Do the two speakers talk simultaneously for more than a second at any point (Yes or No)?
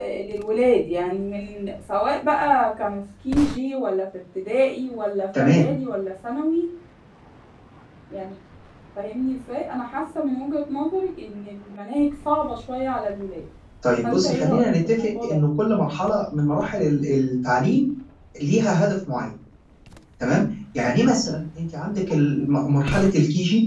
Yes